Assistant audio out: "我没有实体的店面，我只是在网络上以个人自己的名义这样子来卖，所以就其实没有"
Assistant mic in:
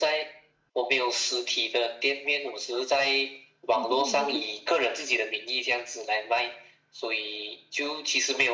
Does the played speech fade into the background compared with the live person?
No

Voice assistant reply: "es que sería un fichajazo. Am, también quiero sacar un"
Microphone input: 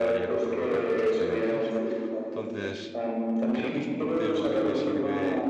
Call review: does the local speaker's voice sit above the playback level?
No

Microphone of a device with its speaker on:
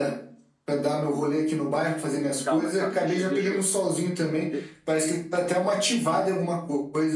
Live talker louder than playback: No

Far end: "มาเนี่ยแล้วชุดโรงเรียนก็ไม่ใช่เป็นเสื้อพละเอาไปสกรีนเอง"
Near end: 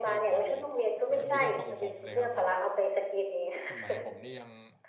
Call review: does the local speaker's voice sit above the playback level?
No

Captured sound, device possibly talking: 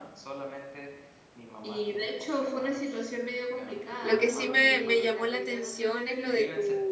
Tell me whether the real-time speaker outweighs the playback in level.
Yes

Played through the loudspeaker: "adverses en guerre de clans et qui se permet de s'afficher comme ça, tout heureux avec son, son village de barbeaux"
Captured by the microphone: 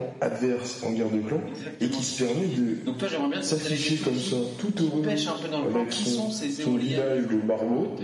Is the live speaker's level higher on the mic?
No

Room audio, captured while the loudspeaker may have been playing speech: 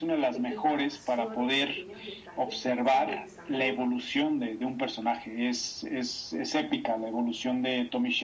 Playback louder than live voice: Yes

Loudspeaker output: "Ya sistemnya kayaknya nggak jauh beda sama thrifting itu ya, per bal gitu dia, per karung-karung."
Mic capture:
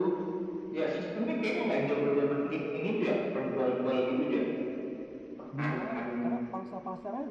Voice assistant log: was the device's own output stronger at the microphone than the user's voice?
Yes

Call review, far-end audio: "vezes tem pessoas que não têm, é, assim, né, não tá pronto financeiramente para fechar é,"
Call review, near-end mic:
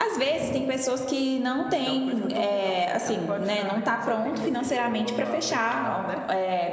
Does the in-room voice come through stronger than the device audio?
No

